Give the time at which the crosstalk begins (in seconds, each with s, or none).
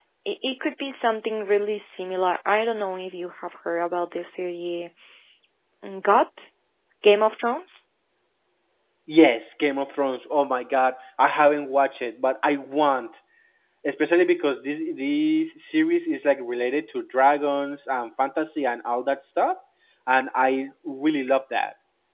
none